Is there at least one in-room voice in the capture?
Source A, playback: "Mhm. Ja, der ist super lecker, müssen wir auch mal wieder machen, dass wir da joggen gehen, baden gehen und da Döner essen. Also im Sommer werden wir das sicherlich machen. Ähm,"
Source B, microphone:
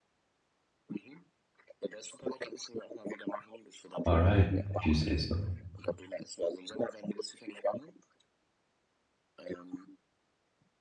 Yes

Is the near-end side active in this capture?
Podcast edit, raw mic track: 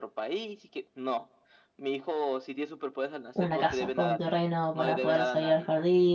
Yes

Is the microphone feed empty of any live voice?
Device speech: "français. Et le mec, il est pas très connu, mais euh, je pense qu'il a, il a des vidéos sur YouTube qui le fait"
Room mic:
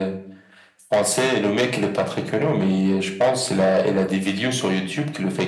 Yes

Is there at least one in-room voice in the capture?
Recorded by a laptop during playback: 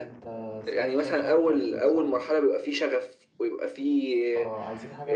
Yes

